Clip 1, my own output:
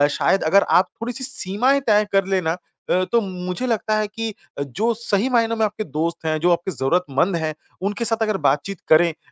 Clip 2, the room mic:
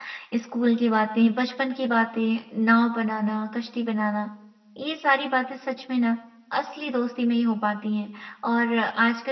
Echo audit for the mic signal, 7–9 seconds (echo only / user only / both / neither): user only